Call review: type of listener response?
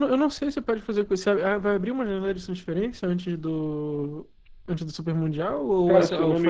taking over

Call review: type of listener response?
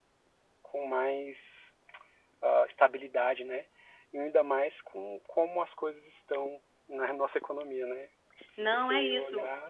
taking over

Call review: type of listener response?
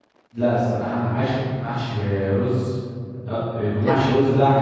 listening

